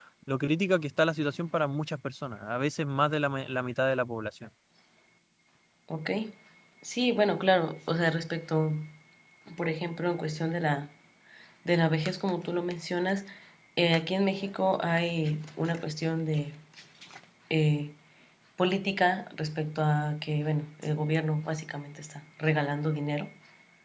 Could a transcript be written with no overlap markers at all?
Yes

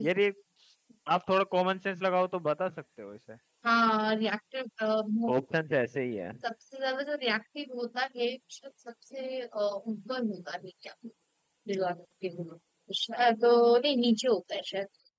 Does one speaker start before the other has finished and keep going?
No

